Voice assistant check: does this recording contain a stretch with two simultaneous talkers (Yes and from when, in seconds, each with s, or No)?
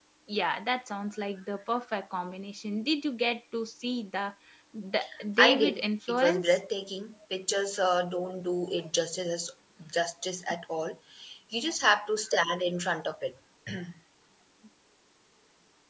Yes, from 5.4 s